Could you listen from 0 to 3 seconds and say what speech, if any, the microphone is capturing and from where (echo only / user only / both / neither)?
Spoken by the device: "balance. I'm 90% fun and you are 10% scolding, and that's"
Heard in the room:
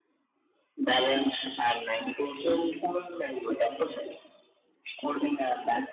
echo only